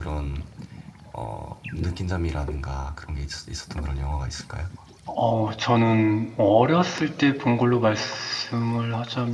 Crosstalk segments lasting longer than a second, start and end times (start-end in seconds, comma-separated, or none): none